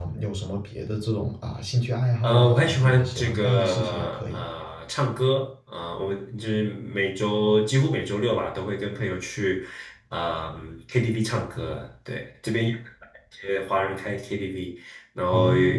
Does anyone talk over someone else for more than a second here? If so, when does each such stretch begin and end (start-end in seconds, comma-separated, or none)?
2.2-4.4